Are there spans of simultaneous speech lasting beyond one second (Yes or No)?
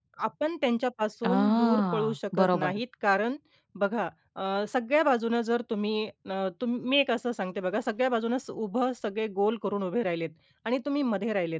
Yes